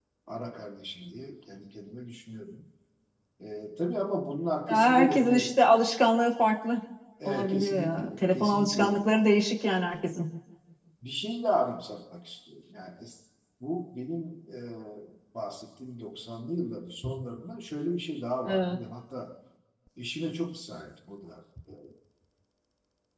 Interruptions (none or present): present